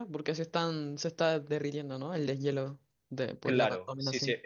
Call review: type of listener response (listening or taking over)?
taking over